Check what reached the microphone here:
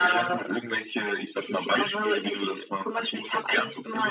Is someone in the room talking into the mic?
No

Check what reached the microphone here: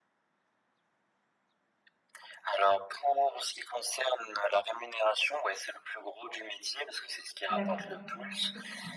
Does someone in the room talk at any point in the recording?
Yes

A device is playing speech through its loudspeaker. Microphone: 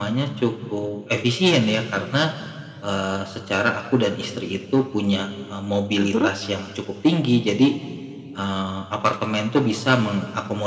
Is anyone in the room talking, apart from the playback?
Yes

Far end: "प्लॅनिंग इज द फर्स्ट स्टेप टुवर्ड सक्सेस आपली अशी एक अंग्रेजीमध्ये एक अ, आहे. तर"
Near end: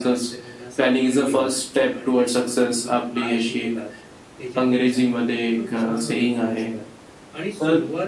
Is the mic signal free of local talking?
No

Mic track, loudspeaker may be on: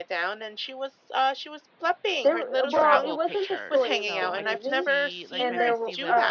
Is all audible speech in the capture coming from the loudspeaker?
No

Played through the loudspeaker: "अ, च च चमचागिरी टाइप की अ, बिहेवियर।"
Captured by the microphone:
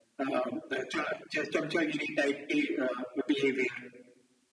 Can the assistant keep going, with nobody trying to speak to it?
Yes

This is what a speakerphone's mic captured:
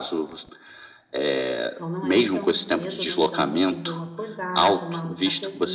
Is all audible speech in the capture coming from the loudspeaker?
No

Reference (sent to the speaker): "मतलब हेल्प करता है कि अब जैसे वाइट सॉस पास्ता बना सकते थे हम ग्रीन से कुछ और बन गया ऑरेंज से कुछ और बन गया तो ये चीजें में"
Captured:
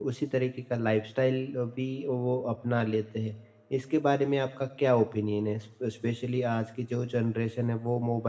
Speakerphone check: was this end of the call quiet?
No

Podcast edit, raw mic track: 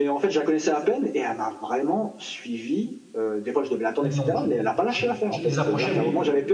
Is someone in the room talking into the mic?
Yes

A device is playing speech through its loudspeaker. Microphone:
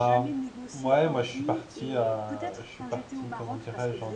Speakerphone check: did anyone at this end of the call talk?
Yes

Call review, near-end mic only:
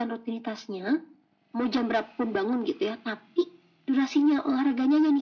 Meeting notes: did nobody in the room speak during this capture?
Yes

